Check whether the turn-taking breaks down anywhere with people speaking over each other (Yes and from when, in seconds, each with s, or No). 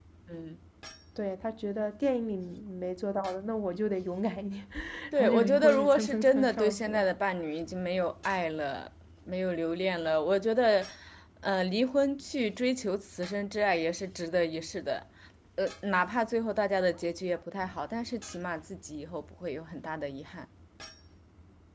Yes, from 5.1 s